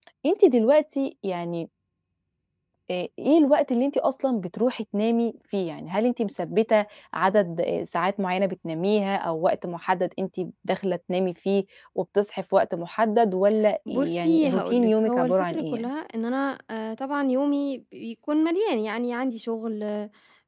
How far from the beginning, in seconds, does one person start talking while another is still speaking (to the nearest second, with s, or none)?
14 s